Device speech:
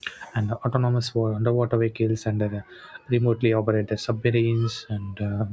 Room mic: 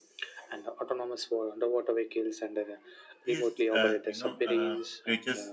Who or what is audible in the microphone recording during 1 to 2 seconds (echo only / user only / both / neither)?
echo only